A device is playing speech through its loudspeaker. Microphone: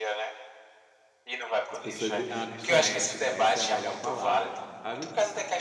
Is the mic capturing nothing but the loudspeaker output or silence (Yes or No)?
No